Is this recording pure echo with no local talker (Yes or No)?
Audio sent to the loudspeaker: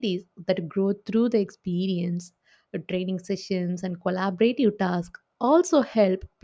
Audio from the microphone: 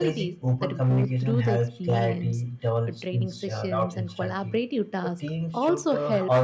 No